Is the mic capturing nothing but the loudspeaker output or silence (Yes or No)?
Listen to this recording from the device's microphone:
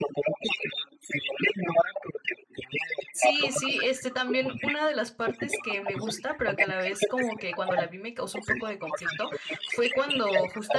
No